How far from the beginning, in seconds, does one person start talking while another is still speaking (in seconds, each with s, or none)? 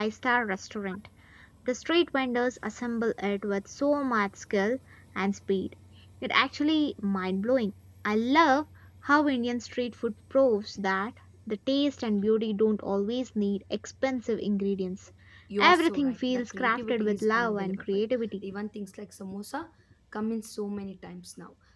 15.6 s